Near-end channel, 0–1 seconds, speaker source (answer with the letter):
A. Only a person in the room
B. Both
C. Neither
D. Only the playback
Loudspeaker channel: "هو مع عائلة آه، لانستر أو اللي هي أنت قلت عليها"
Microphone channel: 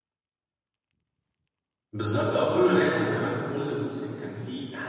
C